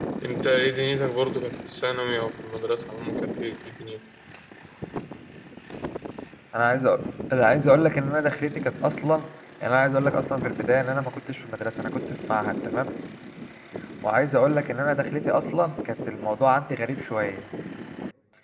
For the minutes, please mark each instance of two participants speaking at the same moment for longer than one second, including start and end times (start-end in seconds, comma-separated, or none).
none